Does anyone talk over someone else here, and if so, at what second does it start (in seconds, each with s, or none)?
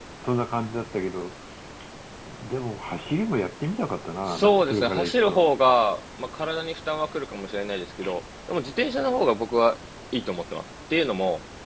4.3 s